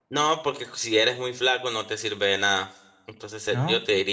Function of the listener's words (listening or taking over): listening